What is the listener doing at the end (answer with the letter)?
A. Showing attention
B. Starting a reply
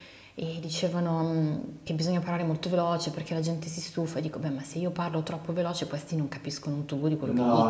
B